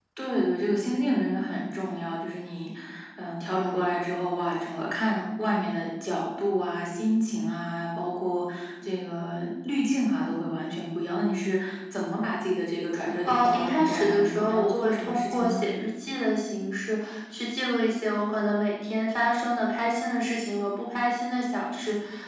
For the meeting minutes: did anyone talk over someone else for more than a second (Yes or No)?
Yes